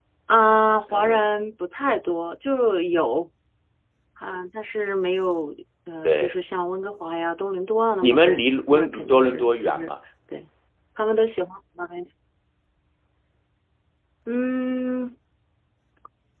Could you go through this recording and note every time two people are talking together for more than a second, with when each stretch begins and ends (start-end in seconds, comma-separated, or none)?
8.0-9.9